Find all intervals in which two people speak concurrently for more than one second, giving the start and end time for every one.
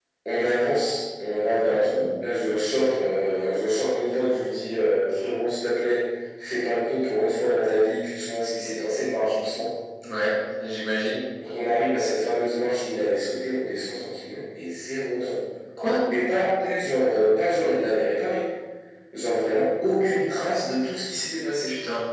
none

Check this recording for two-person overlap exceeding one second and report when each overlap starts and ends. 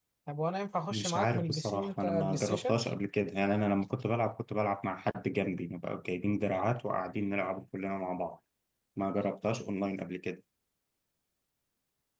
0.9-2.8

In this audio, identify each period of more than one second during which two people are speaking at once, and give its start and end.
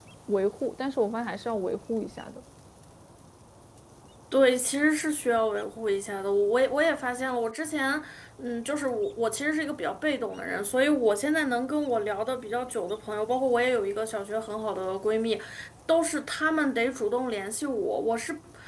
none

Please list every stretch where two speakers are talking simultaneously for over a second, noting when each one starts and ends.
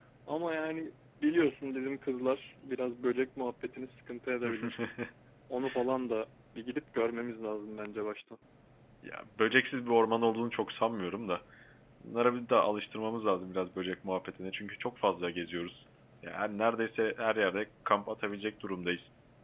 none

